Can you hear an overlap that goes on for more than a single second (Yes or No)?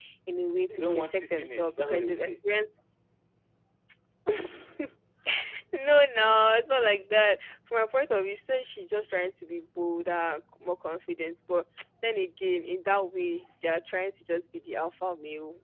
Yes